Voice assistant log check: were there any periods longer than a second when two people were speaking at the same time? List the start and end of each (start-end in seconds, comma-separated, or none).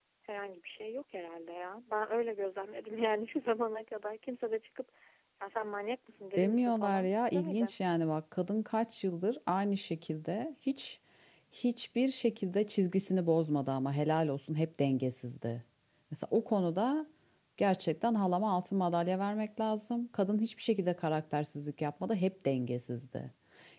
6.4-7.7